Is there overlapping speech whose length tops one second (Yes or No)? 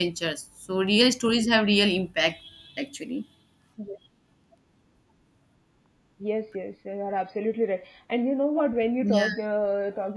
No